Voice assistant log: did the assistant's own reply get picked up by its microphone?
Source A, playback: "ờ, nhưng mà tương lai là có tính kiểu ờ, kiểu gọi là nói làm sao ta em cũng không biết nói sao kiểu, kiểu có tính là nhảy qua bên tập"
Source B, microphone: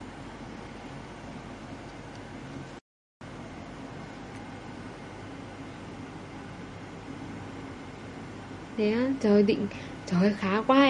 No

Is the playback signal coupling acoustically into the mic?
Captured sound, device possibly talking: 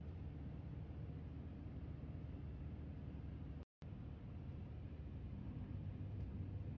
No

